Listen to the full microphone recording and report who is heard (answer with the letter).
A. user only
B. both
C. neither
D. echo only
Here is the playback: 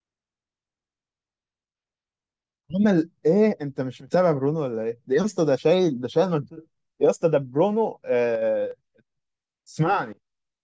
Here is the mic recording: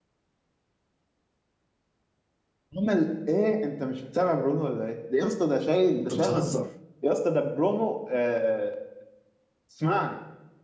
B